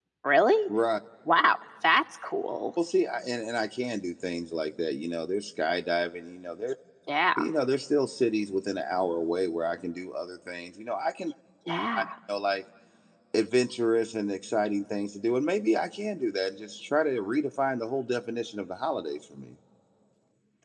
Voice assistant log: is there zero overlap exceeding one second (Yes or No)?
Yes